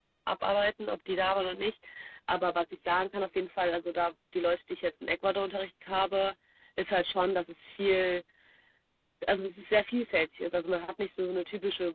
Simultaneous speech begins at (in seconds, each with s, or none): none